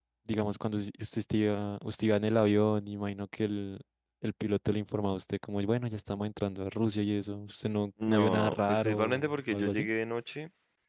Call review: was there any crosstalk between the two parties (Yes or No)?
Yes